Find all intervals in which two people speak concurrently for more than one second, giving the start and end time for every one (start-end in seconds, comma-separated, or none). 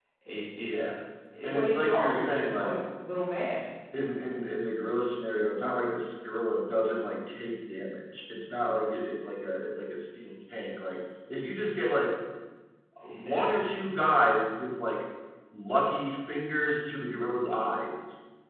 1.5-2.8